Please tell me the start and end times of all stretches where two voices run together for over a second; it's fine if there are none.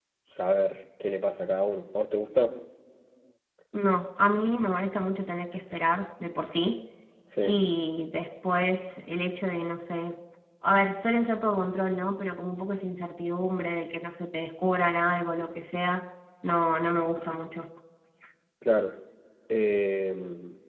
none

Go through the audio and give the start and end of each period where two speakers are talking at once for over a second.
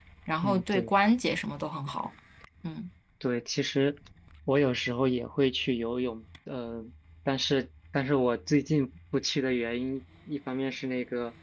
none

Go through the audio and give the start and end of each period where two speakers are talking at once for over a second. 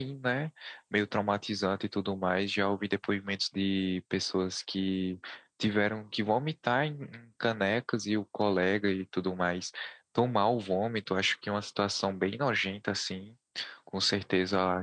none

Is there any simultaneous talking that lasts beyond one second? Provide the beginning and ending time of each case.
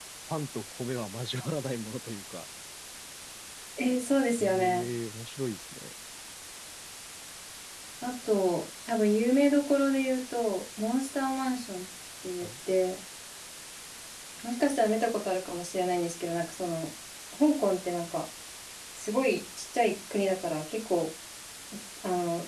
none

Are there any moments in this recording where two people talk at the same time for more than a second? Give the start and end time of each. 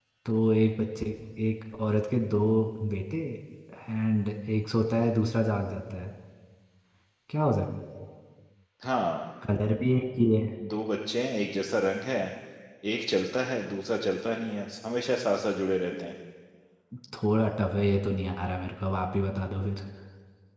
none

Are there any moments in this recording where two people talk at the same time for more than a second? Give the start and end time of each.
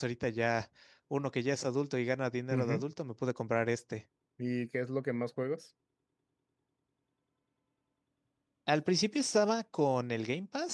none

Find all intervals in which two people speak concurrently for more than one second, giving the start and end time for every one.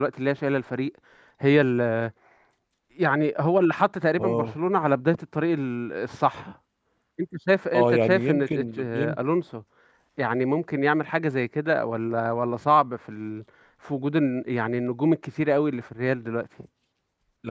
7.8-9.2

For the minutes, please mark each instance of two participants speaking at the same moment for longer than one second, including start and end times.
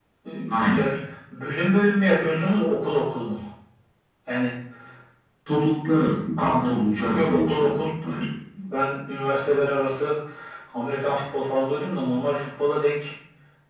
6.4-8.2

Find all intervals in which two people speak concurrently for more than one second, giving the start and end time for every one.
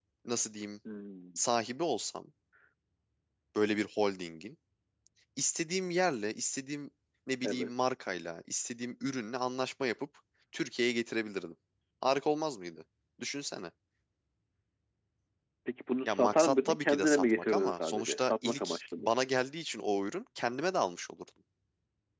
16.1-19.1

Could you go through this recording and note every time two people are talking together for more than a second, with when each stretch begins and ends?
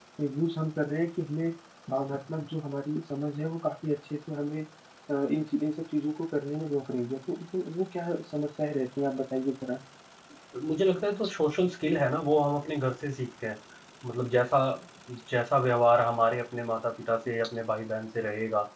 none

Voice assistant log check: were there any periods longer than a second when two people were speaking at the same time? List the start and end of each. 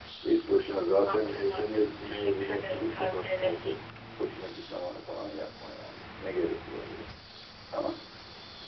1.1-3.7

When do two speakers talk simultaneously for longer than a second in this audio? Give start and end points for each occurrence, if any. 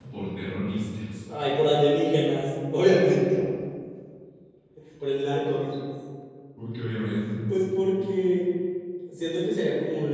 none

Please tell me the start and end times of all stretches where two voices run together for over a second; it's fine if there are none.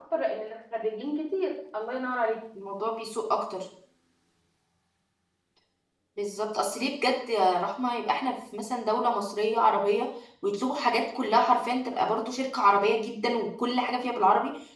none

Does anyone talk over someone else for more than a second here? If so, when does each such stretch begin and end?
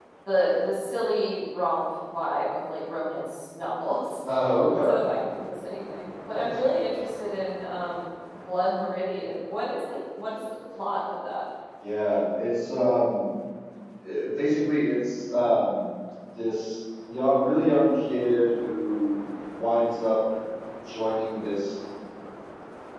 none

